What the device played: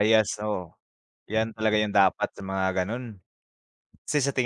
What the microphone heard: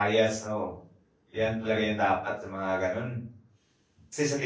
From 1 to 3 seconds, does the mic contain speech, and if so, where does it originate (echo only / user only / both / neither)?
echo only